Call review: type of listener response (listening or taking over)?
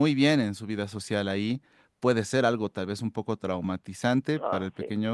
listening